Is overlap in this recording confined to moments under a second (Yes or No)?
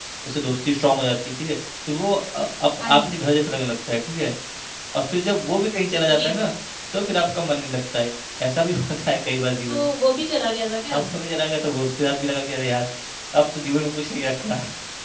Yes